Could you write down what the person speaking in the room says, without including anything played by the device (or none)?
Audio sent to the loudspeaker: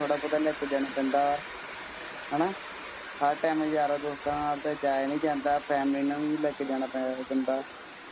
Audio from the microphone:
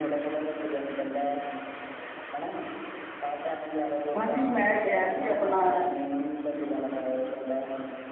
ਹਾਂਜੀ ਮੈਂ ਗਿਆ ਆਪਣਾ